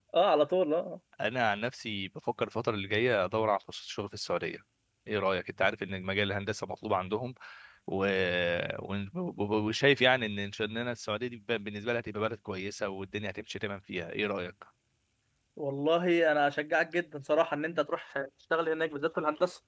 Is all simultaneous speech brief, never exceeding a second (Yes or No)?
Yes